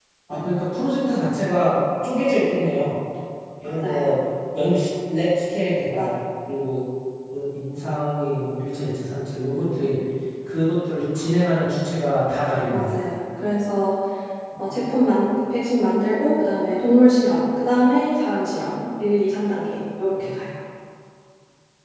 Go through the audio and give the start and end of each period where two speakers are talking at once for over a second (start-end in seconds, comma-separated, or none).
none